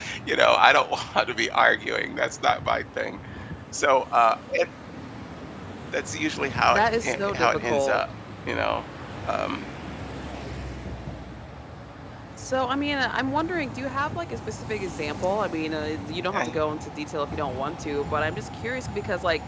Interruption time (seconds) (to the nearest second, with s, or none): 7 s